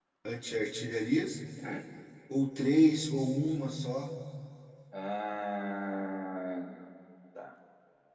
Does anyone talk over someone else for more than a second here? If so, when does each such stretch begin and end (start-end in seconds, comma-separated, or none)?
none